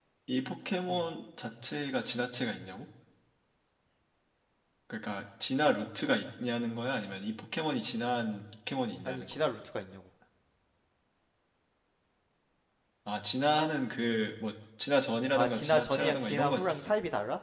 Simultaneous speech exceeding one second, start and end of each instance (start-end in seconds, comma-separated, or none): 15.3-16.9